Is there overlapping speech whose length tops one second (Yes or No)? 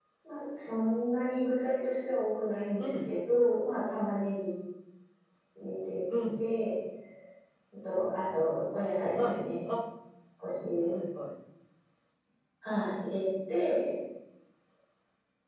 No